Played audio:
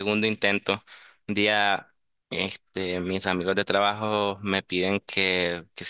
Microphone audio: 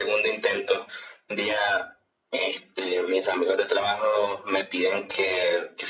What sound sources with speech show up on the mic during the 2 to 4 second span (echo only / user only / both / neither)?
echo only